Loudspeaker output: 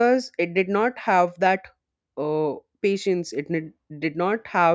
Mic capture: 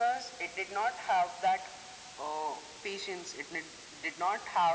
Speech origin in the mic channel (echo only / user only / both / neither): echo only